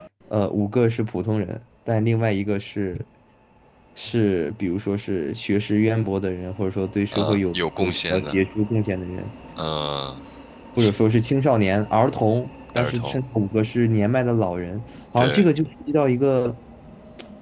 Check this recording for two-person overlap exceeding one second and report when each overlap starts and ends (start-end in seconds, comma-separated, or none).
7.1-8.4